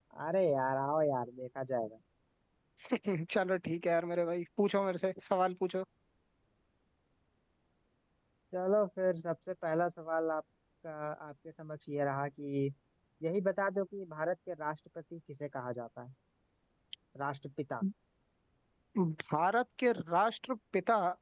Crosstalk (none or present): none